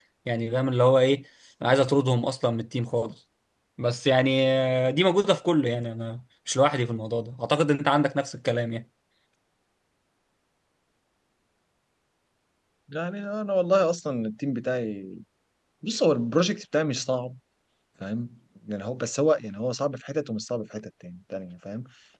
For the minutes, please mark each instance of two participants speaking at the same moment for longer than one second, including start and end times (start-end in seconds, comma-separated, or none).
none